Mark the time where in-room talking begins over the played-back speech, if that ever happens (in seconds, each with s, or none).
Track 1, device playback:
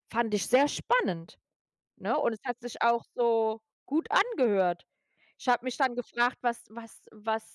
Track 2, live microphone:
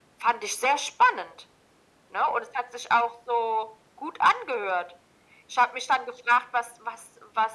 none